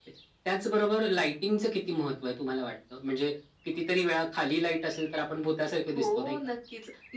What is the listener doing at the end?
taking over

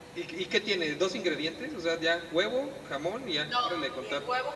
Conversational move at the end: taking over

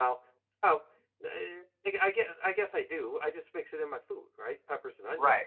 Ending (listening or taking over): taking over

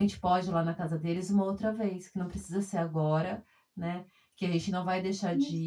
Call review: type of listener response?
listening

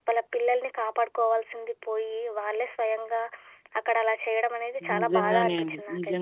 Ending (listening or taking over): taking over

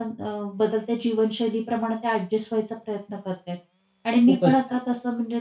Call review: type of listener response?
listening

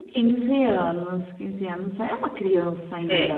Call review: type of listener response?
taking over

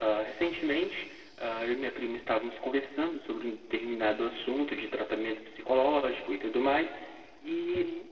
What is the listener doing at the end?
listening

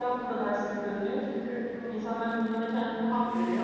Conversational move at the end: listening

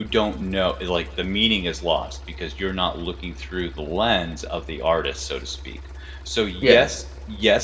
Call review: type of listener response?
listening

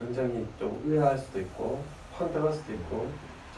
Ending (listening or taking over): listening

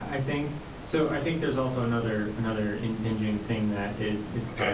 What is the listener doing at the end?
listening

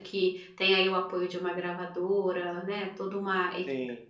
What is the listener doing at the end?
listening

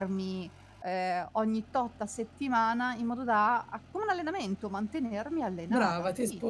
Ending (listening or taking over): taking over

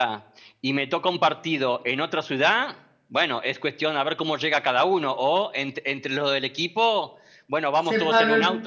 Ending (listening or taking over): listening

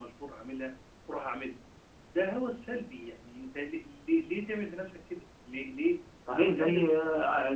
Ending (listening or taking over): taking over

